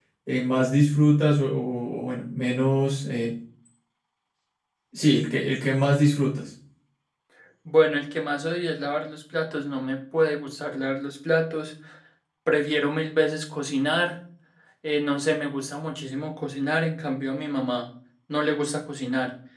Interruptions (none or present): none